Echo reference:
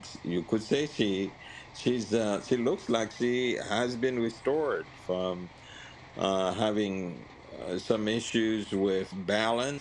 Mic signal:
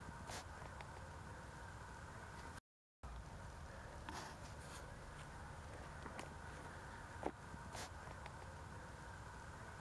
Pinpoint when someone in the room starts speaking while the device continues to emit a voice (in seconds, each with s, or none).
none